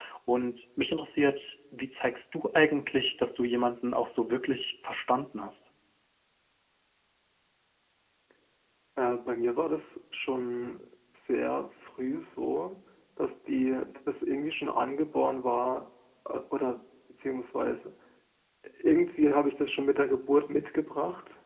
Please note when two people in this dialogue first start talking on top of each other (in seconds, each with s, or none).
none